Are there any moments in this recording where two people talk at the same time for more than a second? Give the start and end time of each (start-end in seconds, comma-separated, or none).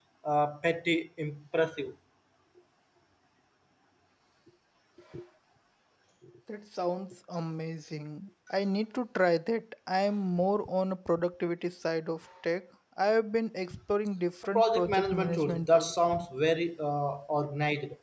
14.6-15.9